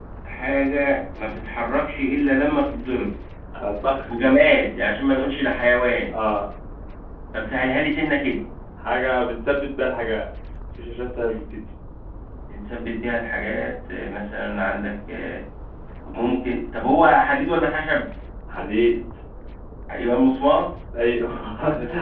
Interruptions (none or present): none